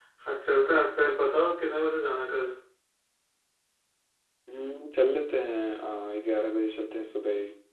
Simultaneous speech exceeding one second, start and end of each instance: none

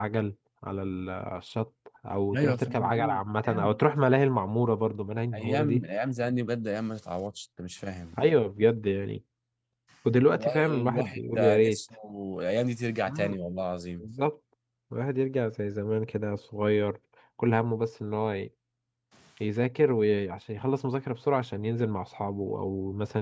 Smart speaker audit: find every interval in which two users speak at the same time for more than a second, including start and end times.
2.4-3.8, 10.4-11.8

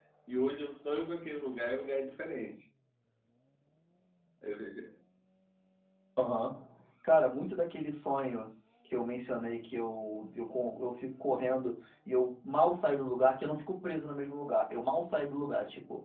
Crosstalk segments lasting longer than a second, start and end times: none

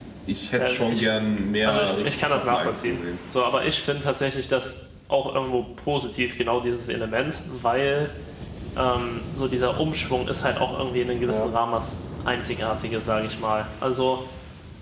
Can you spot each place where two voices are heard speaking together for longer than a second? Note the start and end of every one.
1.6-3.0

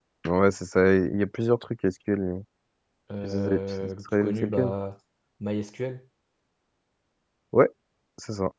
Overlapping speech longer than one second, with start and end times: 3.2-4.7

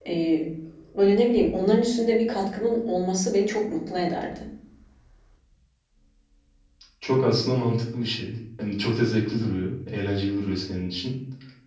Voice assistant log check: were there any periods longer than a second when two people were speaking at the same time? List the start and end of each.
none

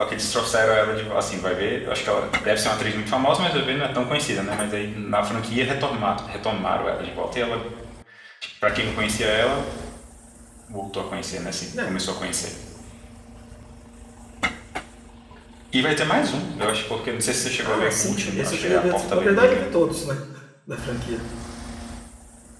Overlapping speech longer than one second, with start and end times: 17.6-19.6

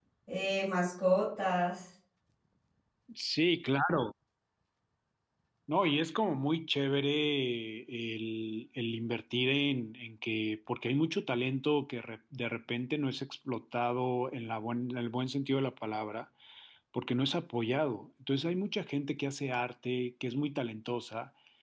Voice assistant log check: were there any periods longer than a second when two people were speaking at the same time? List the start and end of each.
none

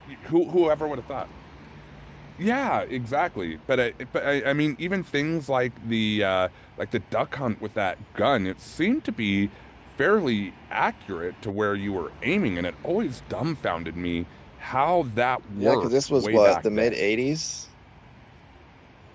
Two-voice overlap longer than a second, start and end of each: 15.6-16.9

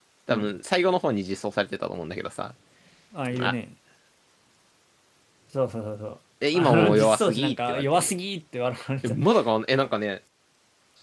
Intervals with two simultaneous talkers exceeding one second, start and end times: 6.5-8.1

